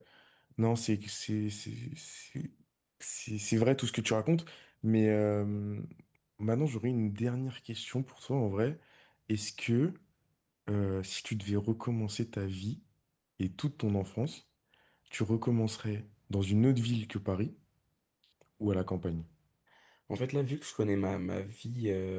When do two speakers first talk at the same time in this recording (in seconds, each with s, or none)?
none